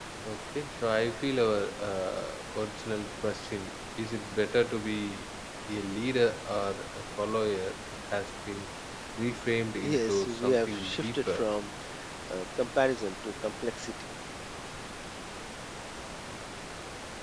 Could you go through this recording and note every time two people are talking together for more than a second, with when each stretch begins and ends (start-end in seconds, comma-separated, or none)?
9.8-11.4